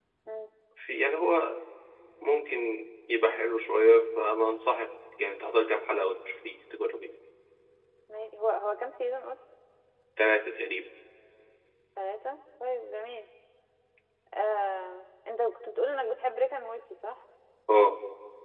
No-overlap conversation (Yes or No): Yes